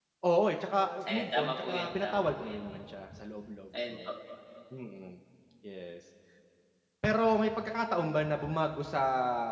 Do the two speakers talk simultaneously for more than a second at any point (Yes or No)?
Yes